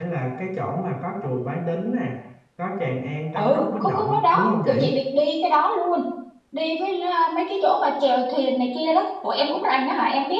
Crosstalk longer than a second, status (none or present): present